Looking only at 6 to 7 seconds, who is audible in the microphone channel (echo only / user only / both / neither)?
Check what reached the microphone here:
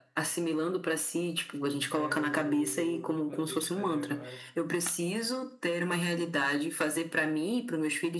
echo only